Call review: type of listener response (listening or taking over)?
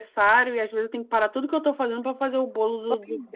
taking over